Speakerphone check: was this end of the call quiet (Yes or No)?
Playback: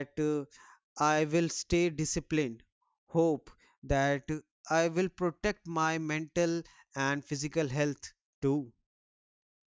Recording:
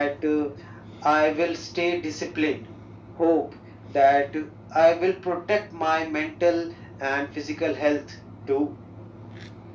Yes